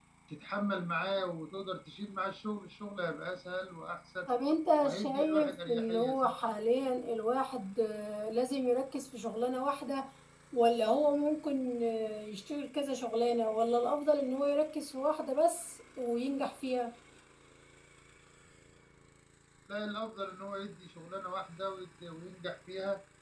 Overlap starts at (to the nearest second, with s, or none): 5 s